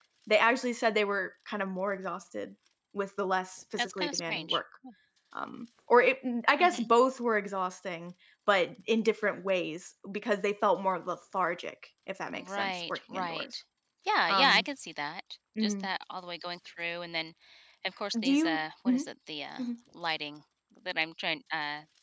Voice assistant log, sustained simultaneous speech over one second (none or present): present